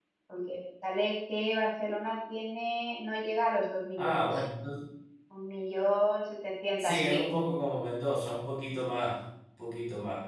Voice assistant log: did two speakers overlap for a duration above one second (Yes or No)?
No